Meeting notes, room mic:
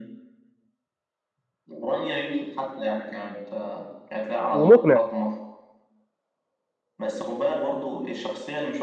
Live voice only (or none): ومقنع